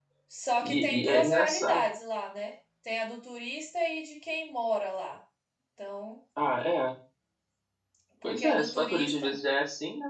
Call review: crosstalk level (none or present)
present